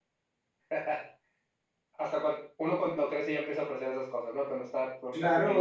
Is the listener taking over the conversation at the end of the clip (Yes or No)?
Yes